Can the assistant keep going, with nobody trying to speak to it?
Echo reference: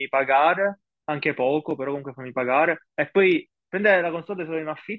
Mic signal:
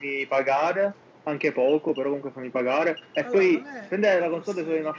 No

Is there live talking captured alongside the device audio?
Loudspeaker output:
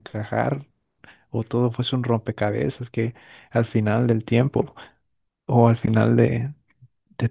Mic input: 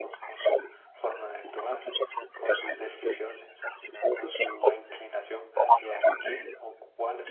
Yes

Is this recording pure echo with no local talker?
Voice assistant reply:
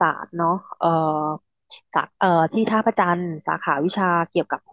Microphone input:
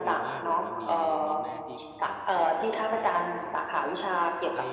No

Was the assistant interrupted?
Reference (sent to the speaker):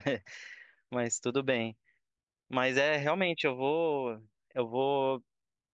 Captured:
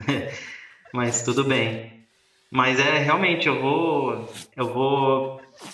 No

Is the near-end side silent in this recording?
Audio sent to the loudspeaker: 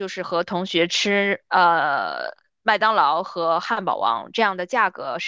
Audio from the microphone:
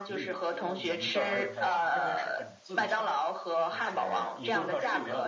No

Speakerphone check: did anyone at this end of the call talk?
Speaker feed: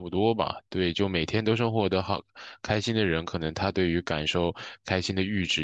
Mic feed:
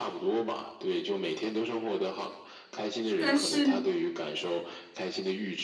Yes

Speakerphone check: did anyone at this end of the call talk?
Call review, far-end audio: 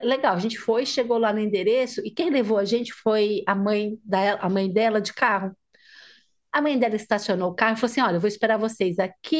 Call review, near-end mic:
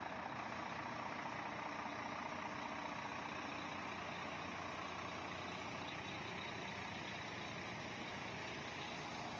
No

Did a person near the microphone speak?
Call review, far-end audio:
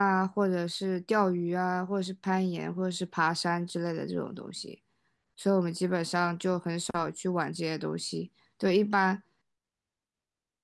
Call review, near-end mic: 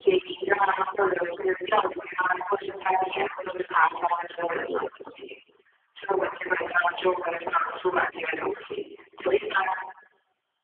No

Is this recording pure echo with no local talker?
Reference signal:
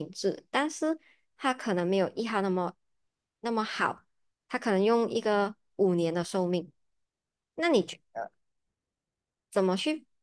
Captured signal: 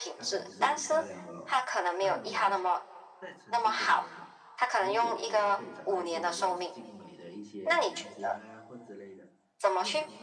No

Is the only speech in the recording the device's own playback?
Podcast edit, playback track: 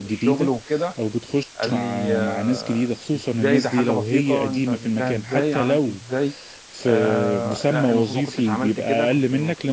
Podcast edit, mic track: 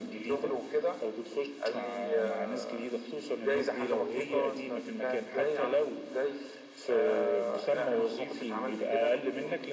Yes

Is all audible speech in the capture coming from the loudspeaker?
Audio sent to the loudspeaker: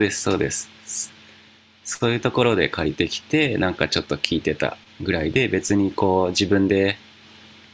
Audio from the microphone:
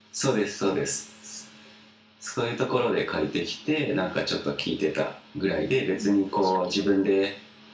No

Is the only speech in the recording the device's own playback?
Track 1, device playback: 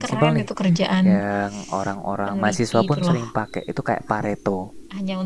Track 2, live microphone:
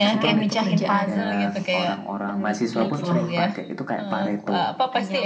No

